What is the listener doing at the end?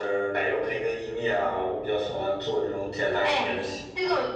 taking over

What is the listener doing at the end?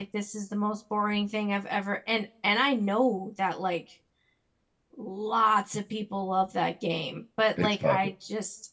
listening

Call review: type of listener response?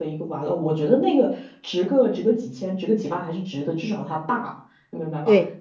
listening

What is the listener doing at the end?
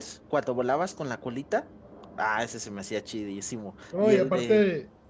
taking over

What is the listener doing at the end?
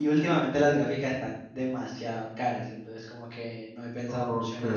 taking over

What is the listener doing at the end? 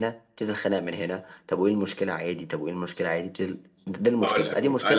taking over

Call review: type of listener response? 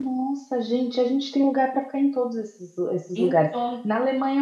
listening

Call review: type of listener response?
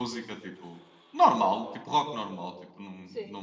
listening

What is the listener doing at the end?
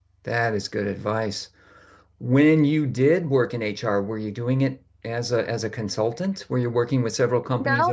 taking over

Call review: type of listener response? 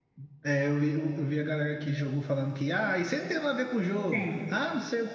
listening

